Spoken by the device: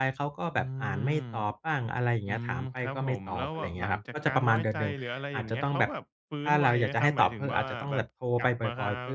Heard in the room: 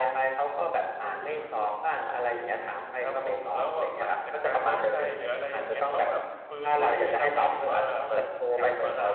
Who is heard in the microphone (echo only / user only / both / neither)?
echo only